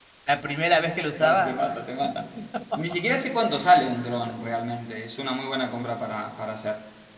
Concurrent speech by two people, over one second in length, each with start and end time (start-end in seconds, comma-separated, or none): none